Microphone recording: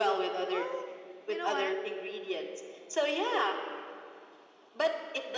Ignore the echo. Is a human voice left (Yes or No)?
Yes